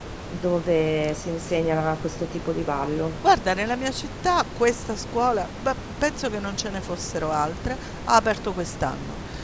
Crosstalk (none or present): none